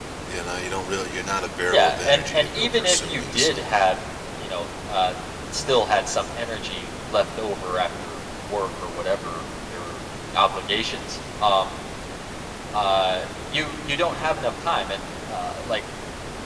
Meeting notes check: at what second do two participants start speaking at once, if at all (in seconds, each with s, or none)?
1.7 s